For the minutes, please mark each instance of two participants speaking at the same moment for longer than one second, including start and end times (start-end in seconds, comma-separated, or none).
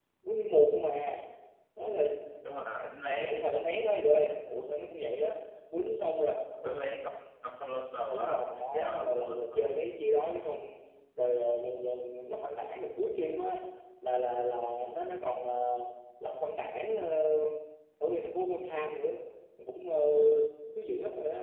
8.1-9.8